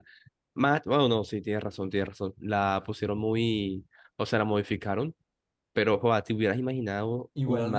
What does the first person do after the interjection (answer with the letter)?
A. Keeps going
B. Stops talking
B